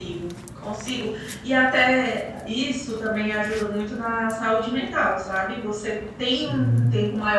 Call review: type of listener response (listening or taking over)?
listening